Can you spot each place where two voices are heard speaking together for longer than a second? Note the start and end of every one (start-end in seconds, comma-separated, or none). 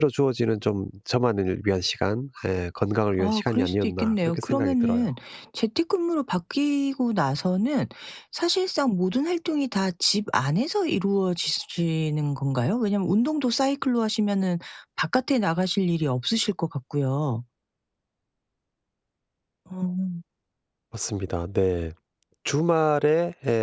3.2-5.1